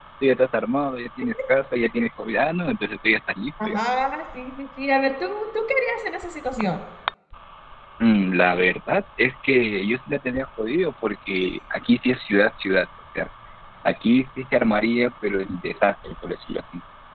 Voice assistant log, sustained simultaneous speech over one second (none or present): none